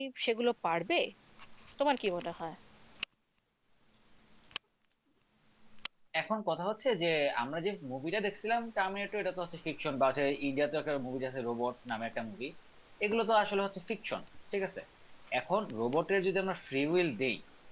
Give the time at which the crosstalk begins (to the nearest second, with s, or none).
none